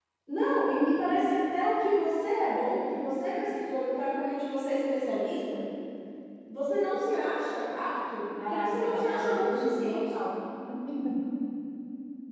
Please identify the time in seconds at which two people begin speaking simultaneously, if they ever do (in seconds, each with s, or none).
8.4 s